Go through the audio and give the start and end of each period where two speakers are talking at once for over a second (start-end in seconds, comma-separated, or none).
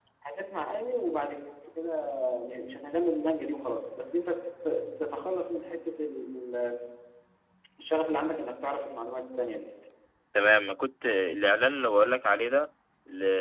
none